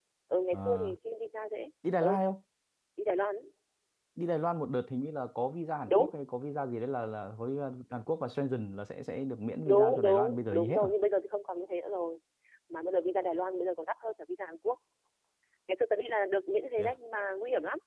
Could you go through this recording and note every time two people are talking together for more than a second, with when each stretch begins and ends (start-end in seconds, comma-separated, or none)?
9.7-10.9